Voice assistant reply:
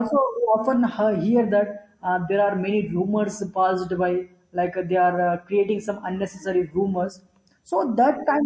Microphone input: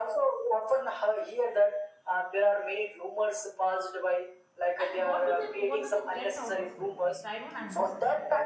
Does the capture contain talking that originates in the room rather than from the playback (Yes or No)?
Yes